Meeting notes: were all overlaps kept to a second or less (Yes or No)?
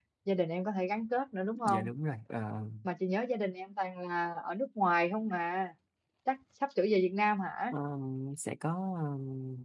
Yes